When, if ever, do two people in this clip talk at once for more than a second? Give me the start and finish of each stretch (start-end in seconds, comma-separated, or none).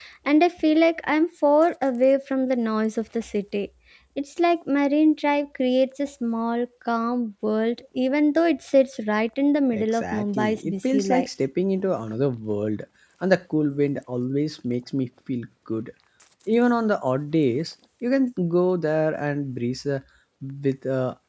9.7-11.3